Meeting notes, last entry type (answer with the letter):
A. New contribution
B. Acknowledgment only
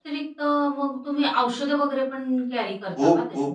A